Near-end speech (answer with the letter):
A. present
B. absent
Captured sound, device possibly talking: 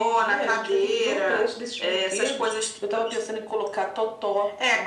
B